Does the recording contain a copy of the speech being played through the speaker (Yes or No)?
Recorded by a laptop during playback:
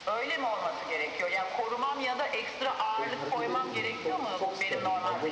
Yes